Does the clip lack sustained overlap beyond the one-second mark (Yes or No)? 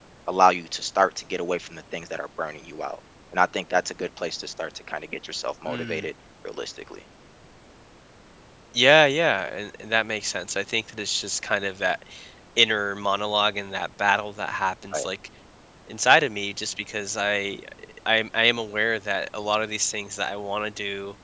Yes